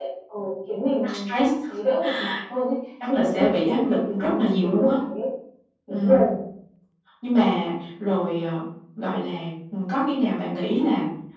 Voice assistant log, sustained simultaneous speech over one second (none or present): present